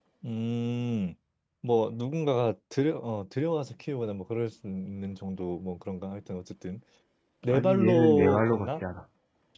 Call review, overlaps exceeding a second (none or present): present